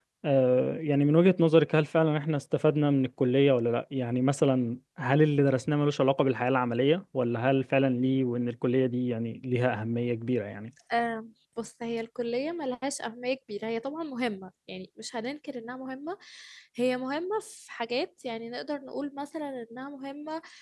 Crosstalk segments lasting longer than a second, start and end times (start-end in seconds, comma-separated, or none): none